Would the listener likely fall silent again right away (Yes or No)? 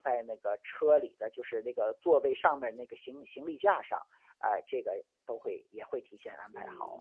No